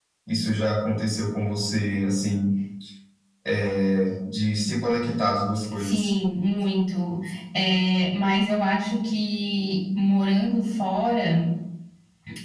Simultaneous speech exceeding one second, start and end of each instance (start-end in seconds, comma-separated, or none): none